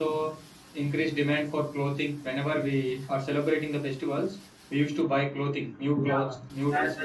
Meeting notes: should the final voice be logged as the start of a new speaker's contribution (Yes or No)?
Yes